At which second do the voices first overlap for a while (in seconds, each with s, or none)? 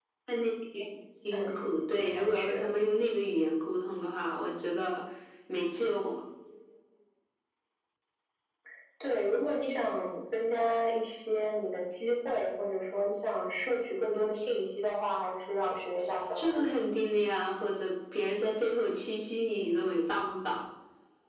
1.3 s